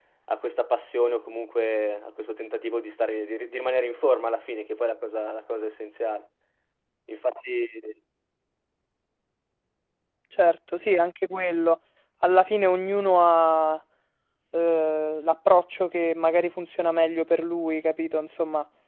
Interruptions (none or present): none